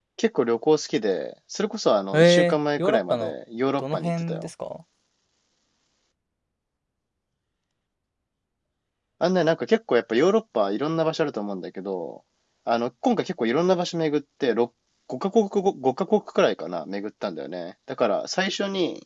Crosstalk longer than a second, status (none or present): present